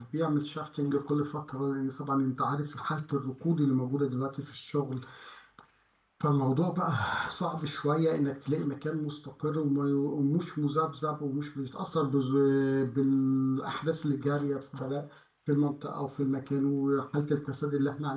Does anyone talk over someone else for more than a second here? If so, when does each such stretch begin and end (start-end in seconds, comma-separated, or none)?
none